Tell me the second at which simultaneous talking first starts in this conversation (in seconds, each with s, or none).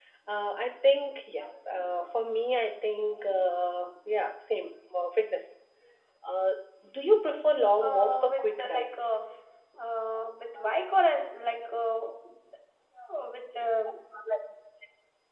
7.8 s